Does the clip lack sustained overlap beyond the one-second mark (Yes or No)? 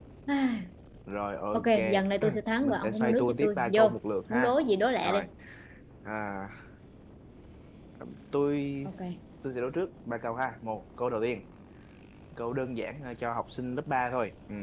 No